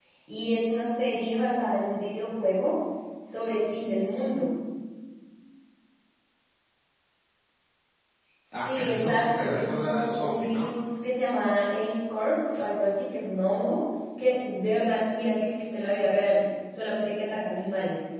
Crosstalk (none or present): present